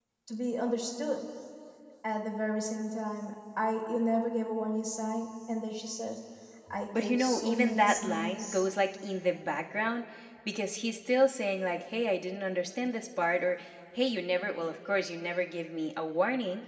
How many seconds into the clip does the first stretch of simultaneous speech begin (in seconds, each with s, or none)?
6.9 s